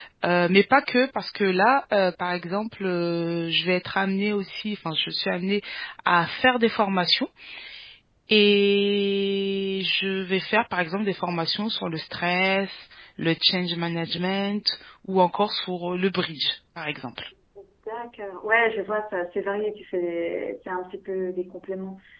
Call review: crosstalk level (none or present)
none